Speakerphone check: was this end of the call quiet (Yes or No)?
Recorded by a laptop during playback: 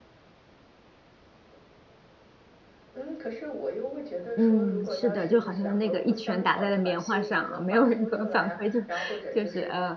No